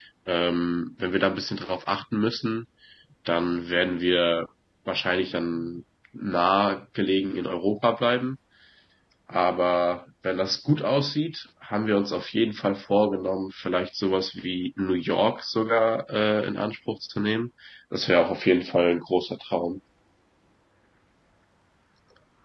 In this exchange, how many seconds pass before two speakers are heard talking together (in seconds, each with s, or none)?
none